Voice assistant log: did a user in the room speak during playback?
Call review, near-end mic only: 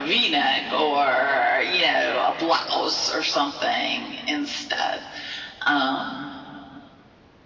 No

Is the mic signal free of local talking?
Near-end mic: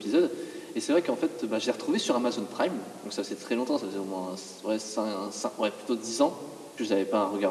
Yes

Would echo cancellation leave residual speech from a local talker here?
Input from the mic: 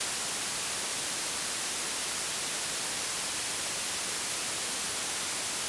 No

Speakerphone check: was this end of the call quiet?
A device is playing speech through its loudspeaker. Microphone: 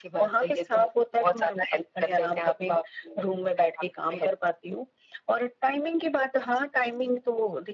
Yes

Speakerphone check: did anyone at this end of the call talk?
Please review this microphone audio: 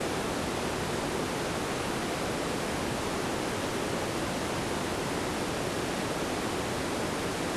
No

